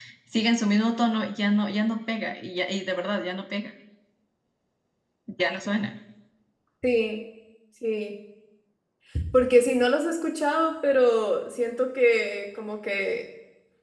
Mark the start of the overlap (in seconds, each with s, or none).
none